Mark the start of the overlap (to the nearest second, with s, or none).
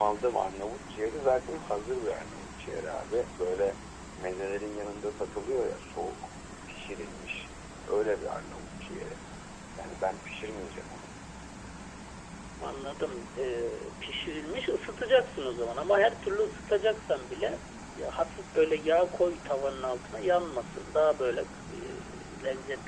none